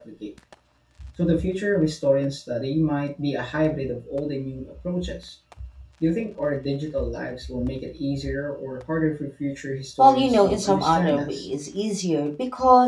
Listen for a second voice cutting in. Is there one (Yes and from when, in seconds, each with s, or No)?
Yes, from 10.0 s